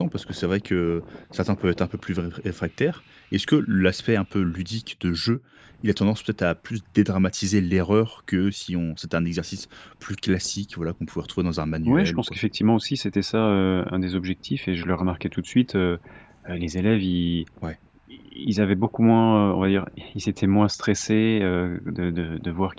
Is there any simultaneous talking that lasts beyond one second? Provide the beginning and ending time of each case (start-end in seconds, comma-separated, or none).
none